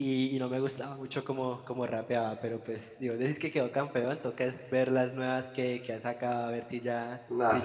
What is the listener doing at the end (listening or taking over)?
taking over